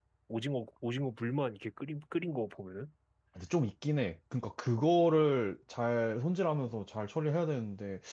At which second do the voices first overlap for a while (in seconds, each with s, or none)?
none